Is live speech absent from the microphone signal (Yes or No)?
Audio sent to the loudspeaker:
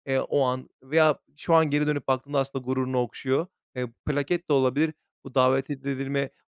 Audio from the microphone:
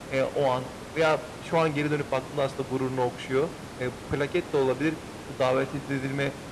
Yes